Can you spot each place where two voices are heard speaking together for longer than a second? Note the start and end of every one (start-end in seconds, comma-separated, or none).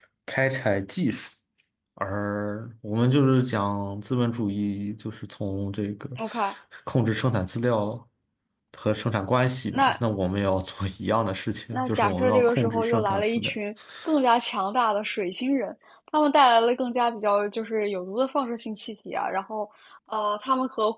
11.7-13.5